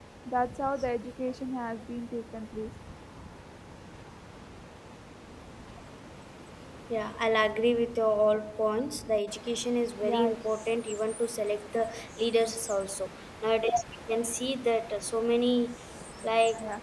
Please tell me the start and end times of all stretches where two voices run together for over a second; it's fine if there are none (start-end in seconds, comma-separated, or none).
none